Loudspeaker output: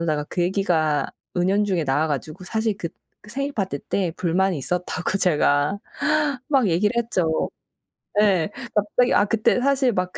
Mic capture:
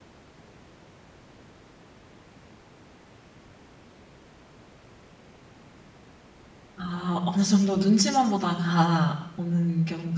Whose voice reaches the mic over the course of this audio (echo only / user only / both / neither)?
user only